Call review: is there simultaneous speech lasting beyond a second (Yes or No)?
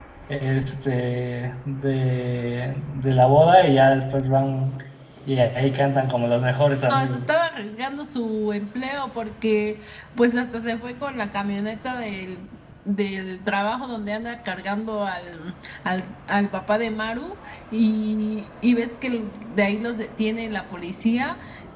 No